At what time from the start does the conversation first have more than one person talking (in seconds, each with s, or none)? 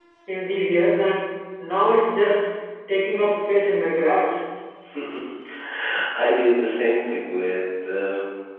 none